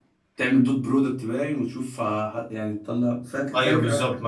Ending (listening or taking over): taking over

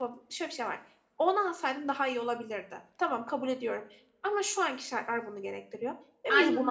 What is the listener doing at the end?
listening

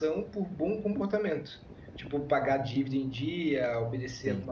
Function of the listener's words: listening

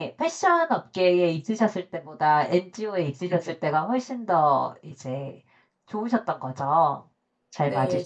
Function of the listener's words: taking over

